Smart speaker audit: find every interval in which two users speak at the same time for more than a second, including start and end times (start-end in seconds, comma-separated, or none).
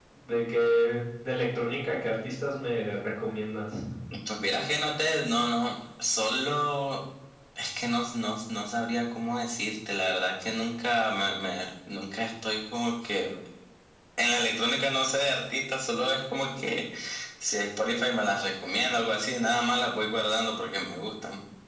none